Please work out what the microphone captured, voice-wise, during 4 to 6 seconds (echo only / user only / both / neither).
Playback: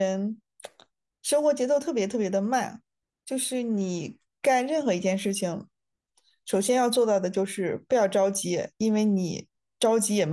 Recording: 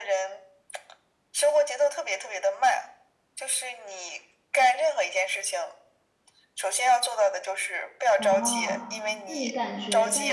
echo only